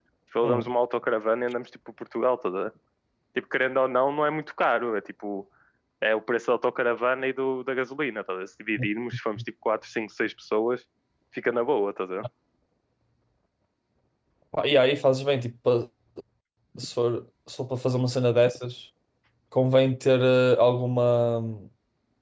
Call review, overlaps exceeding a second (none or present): none